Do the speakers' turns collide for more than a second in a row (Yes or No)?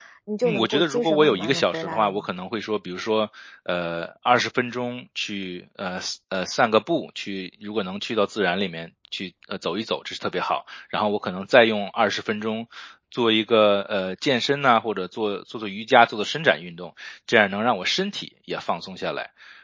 Yes